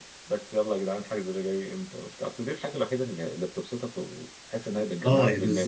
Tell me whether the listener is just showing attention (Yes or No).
No